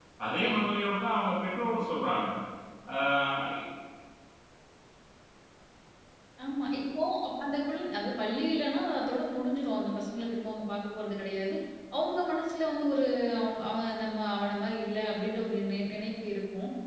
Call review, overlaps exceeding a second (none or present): none